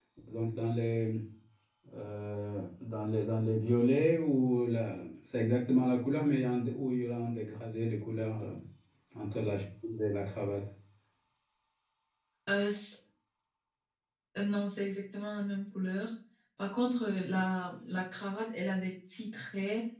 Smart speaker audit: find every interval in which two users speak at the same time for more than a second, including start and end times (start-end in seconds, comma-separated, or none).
none